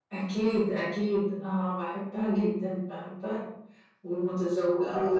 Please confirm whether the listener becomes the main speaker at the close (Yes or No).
Yes